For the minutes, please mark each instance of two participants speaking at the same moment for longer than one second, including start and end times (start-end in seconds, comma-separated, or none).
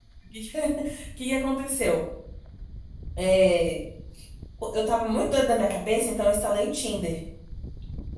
none